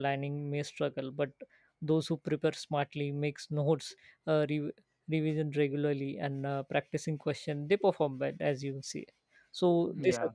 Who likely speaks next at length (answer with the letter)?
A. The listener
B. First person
B